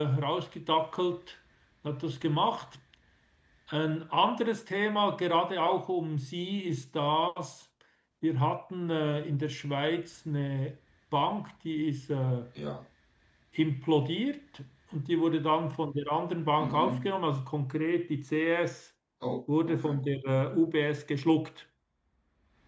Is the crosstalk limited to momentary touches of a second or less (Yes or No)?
Yes